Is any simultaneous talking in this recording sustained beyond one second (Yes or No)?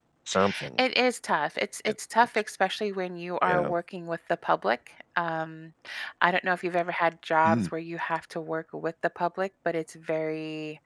No